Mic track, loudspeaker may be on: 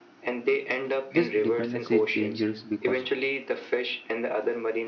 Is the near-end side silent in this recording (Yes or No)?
No